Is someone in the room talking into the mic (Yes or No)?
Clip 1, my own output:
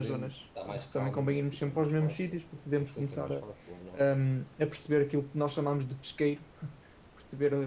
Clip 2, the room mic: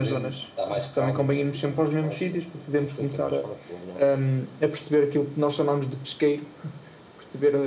No